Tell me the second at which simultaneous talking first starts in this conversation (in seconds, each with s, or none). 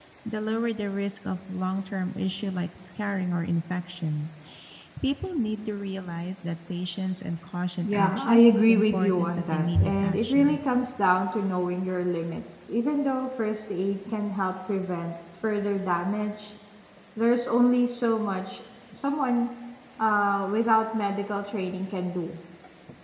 7.8 s